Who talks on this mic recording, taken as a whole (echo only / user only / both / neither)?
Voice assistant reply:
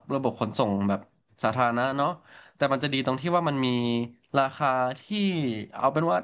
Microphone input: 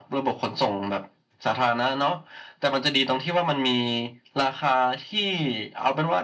echo only